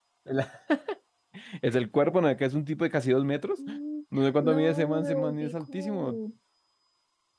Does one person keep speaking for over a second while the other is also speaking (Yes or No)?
Yes